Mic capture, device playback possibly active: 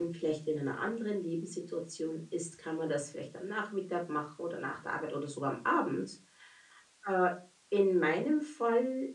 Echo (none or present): none